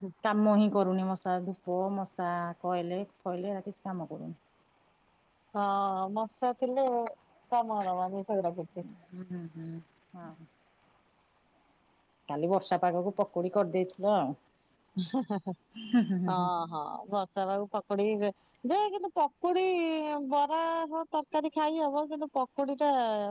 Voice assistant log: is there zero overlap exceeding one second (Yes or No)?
Yes